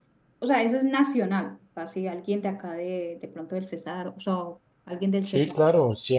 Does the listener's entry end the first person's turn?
Yes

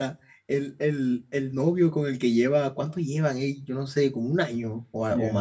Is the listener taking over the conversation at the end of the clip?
Yes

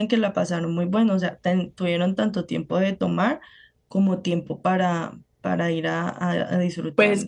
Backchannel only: No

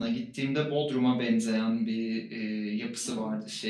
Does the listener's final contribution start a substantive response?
No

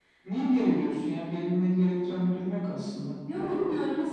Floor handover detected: Yes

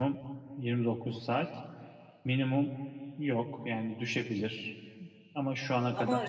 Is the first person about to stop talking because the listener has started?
Yes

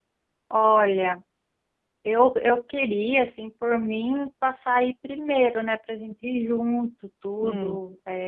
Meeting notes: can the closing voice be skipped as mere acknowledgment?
Yes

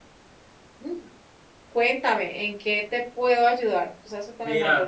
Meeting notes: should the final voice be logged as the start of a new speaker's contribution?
Yes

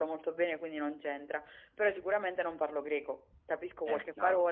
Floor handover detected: No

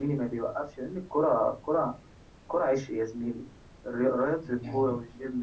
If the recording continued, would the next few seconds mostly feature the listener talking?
No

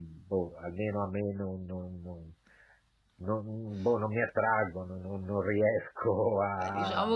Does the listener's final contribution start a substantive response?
Yes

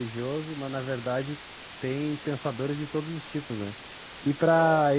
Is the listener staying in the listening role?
Yes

